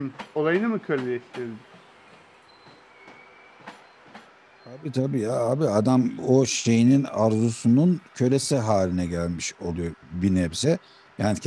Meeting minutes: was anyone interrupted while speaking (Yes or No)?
No